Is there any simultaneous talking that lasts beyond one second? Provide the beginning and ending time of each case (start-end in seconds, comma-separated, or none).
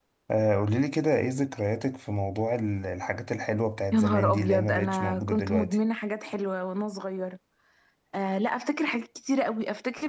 3.9-5.8